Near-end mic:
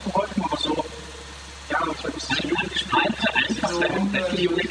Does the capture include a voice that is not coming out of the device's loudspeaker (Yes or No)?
Yes